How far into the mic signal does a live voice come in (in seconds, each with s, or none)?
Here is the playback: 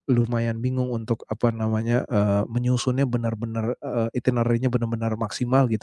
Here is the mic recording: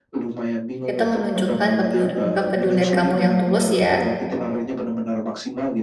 0.9 s